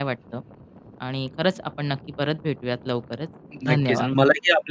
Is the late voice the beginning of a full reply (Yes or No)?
Yes